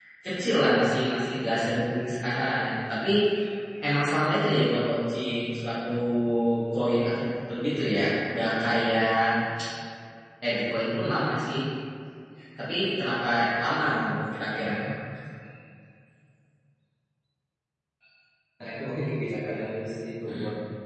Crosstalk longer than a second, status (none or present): none